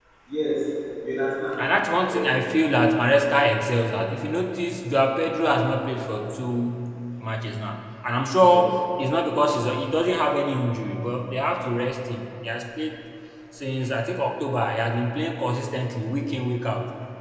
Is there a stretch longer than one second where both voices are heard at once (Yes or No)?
No